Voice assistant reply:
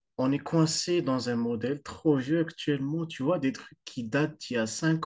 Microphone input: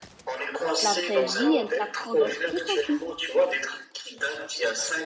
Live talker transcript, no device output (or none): la vraie vie, elle t'apprend d'autres trucs aussi.